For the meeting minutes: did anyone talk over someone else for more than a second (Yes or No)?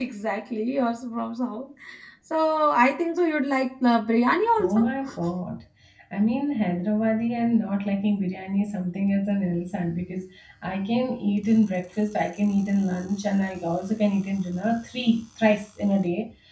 No